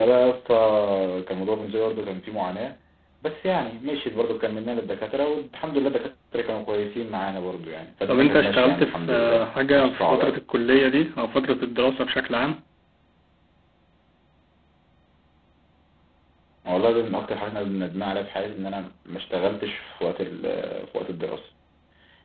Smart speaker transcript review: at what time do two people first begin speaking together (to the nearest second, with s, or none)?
8 s